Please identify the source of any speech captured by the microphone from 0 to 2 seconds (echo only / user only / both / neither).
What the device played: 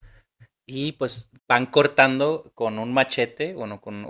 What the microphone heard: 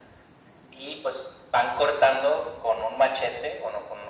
echo only